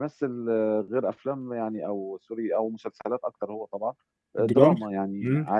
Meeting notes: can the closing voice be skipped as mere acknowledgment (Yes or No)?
Yes